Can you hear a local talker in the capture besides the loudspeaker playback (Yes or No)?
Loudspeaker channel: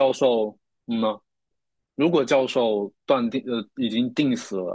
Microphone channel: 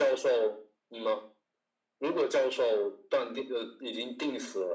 No